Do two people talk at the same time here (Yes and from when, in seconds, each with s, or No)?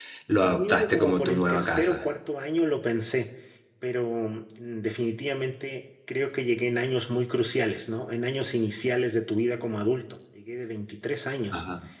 Yes, from 0.5 s